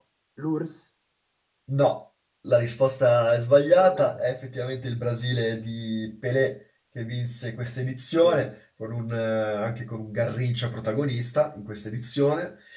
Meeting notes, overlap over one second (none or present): none